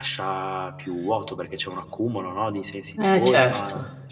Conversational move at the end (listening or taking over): taking over